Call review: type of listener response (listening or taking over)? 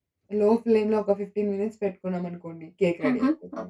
taking over